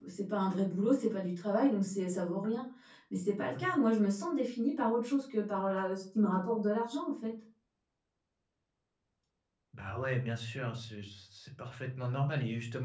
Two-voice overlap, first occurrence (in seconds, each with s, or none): none